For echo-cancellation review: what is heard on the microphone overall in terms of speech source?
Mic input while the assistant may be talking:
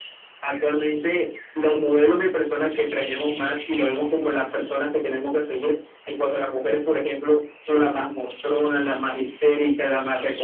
echo only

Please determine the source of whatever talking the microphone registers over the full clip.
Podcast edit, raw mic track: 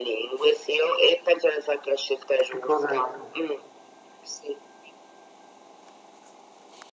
both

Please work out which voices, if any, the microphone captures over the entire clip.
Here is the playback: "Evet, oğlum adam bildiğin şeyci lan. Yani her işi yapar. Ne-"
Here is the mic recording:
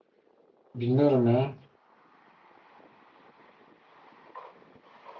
user only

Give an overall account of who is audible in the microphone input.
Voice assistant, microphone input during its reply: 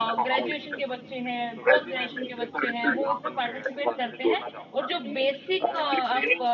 both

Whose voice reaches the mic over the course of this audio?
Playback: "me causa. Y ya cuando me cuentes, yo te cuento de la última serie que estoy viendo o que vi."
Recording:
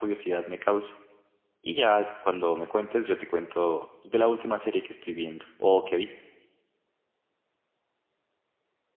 echo only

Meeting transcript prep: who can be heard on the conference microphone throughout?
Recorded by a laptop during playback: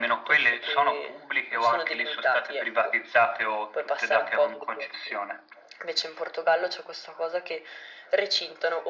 echo only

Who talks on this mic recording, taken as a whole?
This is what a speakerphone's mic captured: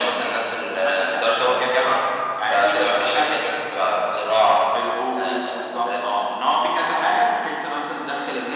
echo only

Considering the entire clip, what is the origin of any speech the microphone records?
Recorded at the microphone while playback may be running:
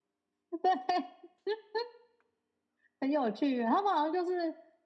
echo only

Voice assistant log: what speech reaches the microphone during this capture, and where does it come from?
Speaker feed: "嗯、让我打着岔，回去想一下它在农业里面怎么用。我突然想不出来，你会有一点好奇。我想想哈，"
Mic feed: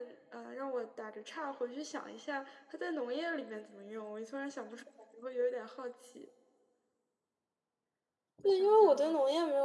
both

